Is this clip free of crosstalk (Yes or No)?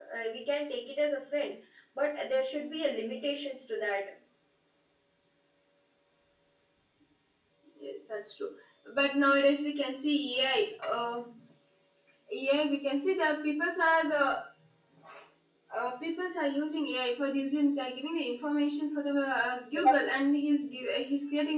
Yes